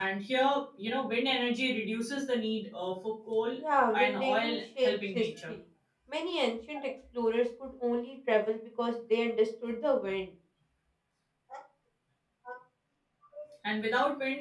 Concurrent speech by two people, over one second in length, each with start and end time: 3.9-5.5

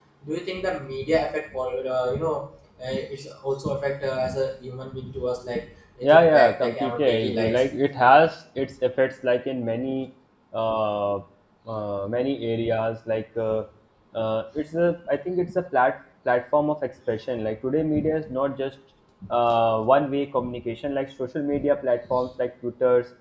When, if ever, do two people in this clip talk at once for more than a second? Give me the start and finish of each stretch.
6.0-7.7

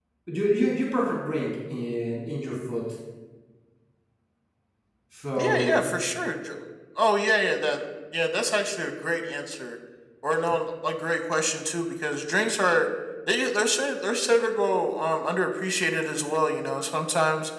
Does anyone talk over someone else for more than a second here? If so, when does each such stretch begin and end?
none

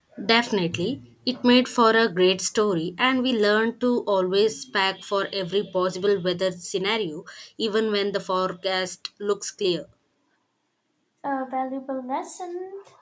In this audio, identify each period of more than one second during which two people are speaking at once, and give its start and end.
none

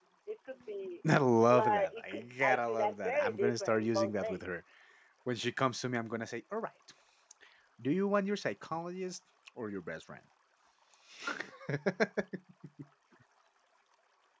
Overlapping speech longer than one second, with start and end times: 1.5-4.4

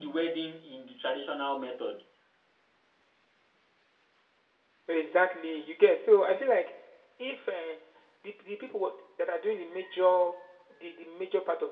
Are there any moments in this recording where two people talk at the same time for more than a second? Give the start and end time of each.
none

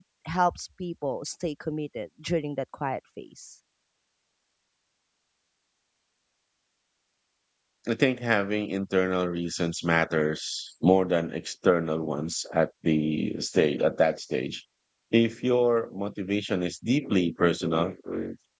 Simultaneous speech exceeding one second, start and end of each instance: none

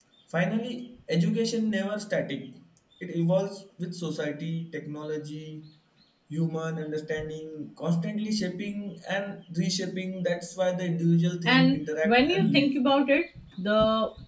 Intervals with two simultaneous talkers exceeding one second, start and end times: 11.4-12.7

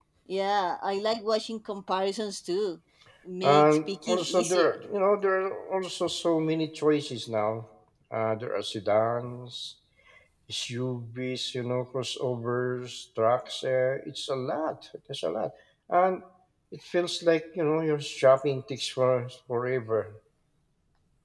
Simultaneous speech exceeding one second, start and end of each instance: 3.4-4.8

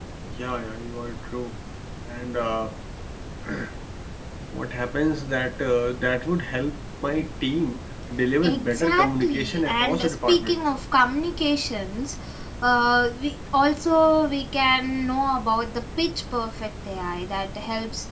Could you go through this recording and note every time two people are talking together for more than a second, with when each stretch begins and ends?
8.4-10.6

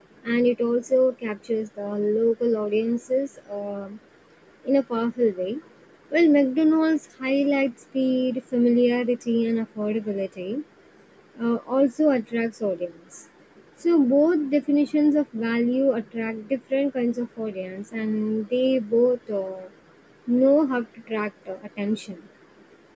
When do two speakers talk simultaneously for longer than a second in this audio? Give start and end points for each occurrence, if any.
none

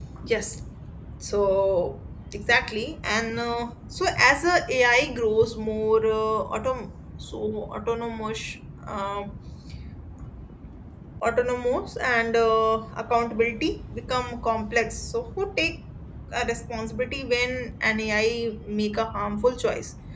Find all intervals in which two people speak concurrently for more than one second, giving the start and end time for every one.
none

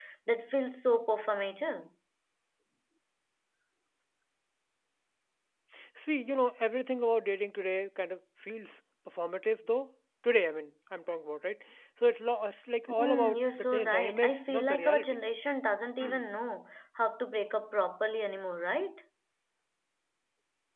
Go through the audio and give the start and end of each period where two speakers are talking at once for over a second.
13.0-15.2

